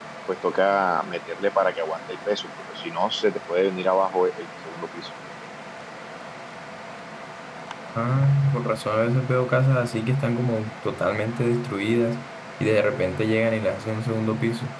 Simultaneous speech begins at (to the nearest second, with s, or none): none